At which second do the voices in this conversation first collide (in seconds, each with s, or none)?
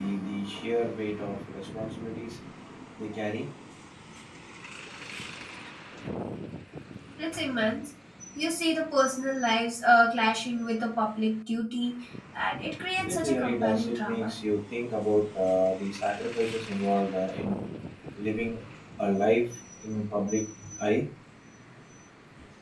13.1 s